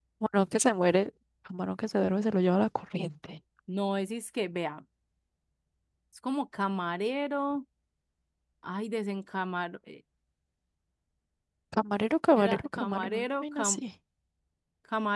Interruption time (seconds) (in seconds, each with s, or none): 12.4 s